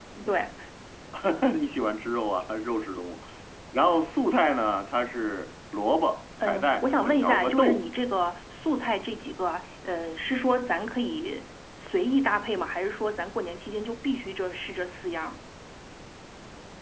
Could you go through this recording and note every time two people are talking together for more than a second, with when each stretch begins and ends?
6.5-7.8

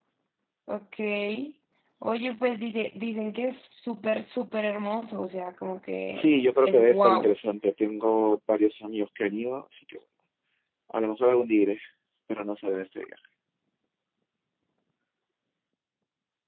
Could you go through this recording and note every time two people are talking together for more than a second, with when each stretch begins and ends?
6.1-7.3

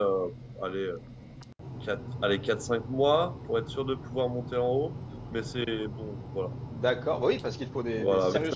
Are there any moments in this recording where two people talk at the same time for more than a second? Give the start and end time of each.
none

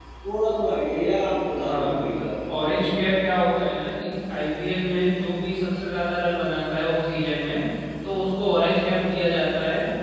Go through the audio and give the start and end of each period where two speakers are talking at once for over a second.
1.6-2.9

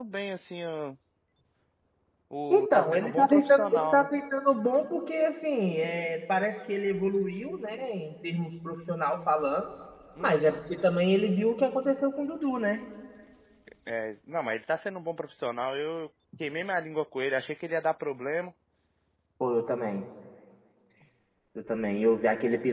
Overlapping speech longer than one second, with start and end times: 2.5-4.1

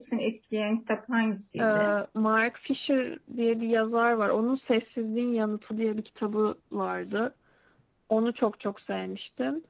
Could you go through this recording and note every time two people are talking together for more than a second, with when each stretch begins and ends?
none

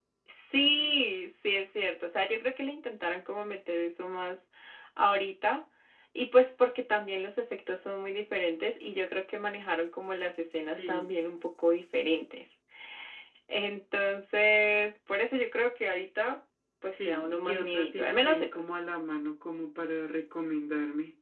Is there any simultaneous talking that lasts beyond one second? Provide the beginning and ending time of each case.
16.9-18.7

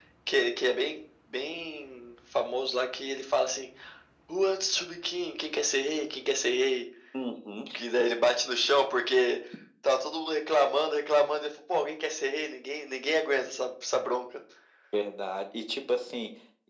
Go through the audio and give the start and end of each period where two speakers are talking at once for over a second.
none

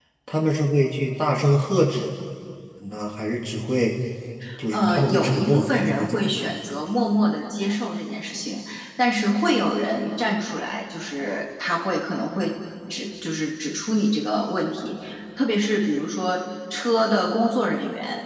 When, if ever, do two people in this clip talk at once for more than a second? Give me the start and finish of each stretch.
4.7-6.3

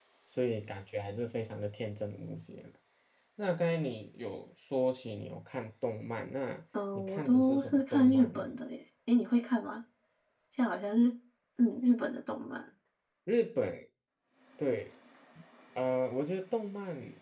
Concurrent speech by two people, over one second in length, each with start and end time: 7.0-8.4

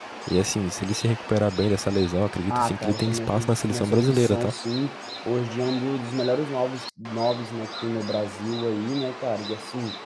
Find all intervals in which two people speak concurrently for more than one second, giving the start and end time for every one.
2.5-4.5

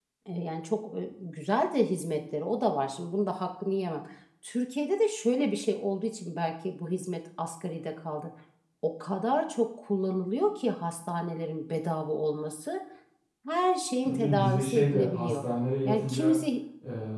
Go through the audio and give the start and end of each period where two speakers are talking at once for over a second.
14.0-15.4

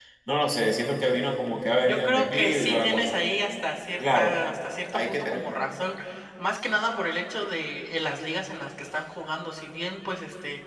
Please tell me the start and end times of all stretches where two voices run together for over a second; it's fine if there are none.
1.8-3.1

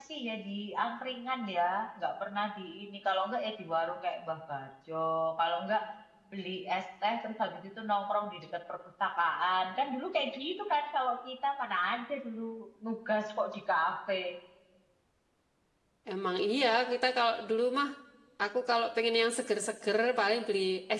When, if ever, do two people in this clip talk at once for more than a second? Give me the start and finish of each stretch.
none

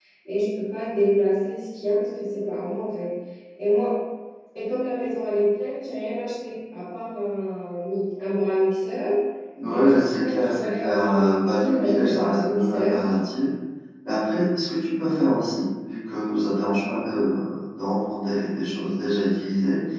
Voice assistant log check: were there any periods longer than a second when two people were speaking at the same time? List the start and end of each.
9.7-12.9

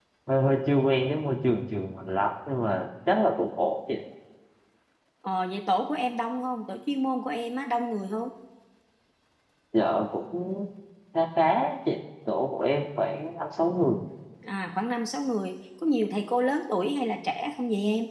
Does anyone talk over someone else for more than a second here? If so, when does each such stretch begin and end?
none

